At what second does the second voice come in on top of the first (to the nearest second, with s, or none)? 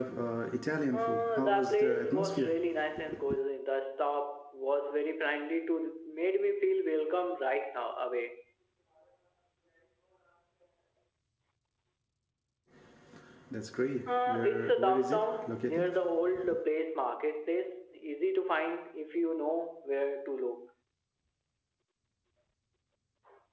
1 s